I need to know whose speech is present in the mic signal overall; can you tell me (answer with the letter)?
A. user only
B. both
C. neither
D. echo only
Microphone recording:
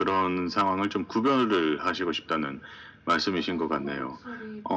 B